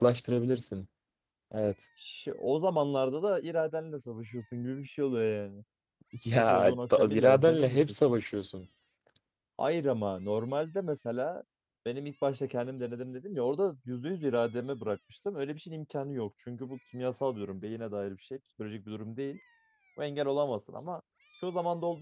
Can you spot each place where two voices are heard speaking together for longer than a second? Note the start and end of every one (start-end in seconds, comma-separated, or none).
6.3-7.8